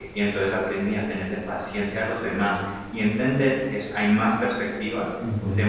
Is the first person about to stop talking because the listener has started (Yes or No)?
No